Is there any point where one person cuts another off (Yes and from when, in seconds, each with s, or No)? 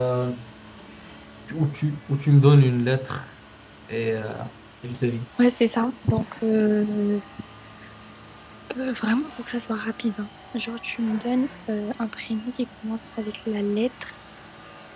No